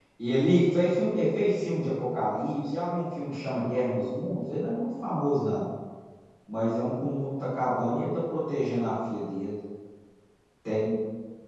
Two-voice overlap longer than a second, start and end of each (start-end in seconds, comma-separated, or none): none